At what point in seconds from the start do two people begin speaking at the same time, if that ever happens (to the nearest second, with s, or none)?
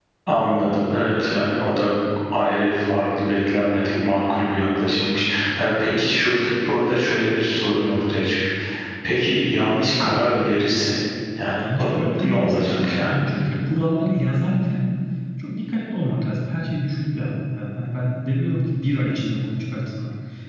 12 s